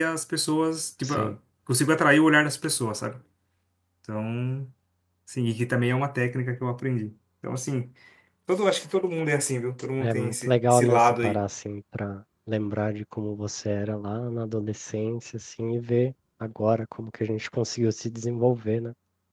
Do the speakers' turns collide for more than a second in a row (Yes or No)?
Yes